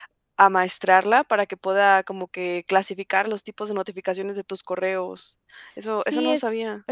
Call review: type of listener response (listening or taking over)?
taking over